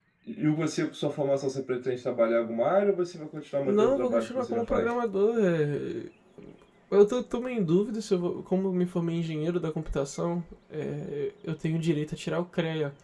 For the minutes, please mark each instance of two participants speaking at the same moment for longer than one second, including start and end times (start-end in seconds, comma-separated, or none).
3.6-4.9